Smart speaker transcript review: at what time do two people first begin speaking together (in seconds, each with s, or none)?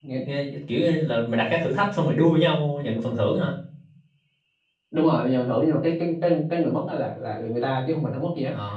none